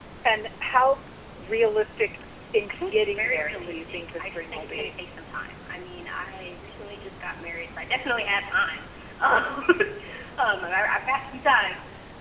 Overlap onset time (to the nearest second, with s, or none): 3 s